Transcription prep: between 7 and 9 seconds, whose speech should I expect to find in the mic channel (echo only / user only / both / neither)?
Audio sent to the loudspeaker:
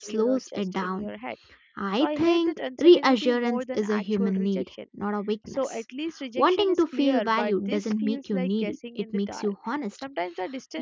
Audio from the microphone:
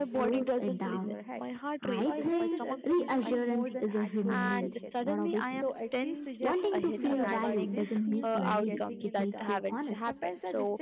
both